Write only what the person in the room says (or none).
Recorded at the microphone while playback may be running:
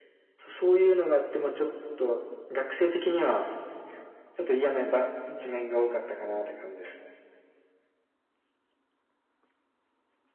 none